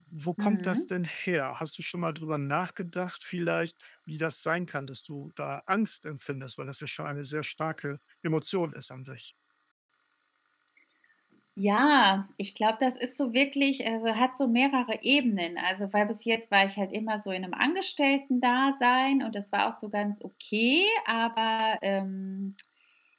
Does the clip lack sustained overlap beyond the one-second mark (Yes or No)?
Yes